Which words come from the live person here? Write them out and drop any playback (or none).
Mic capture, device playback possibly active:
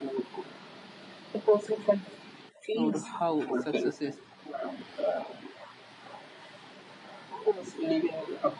or how success is